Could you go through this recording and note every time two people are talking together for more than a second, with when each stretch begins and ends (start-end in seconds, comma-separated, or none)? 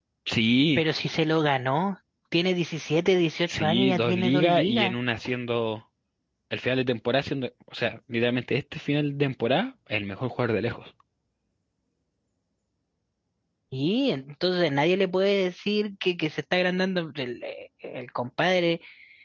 3.5-5.0